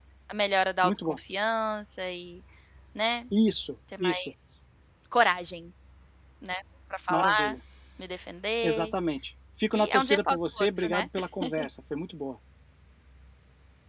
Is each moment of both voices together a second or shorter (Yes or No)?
No